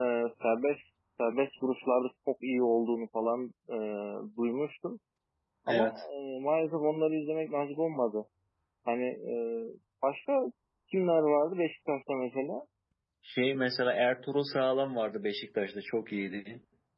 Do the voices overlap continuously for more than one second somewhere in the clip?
No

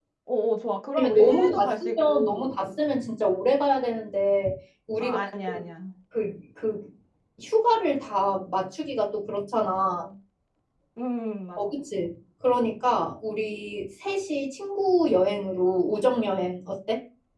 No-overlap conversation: No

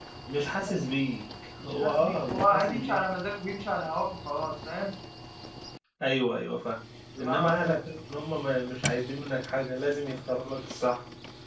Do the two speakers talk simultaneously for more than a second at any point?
Yes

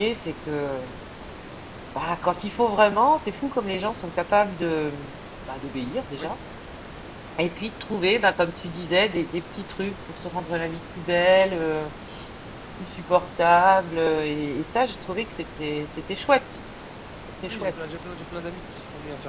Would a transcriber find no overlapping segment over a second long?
Yes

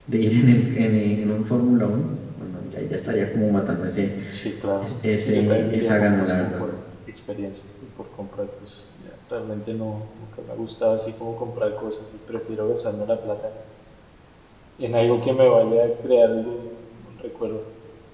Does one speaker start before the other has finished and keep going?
Yes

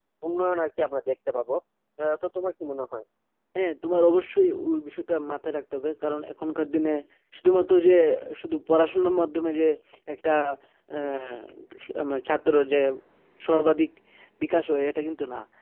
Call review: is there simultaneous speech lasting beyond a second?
No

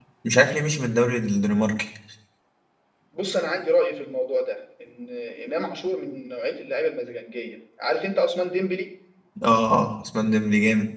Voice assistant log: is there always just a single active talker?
Yes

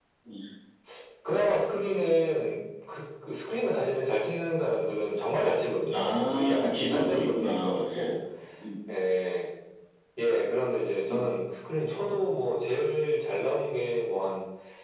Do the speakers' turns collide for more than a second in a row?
Yes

